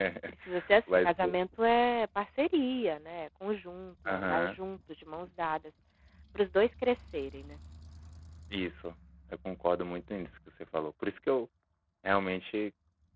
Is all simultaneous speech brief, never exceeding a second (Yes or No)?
Yes